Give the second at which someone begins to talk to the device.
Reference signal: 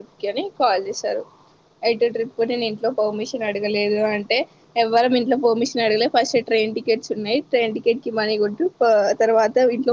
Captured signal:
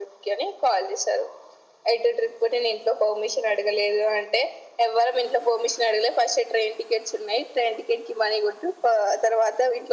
none

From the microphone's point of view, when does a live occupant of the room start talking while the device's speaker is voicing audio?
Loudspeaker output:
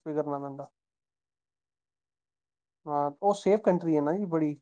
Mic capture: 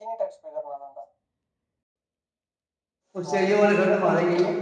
3.1 s

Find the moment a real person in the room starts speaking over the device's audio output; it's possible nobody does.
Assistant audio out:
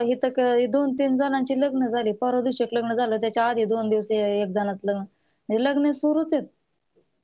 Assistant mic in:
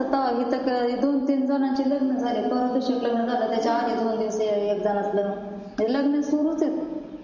3.6 s

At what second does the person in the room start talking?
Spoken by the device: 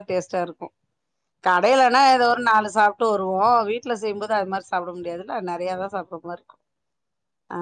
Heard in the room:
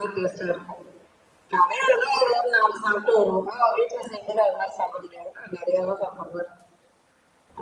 none

